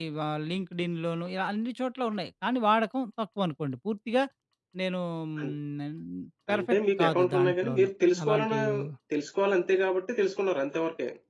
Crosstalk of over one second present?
Yes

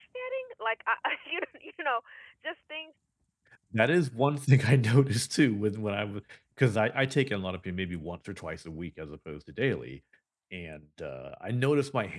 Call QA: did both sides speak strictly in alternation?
Yes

